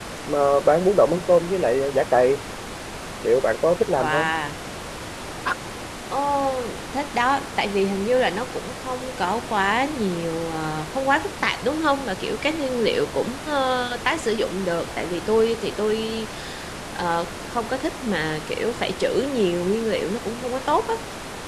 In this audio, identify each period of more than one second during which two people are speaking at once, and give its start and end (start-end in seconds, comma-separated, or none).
none